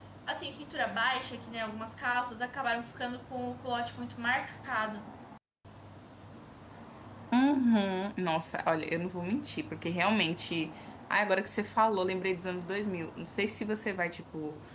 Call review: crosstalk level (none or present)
none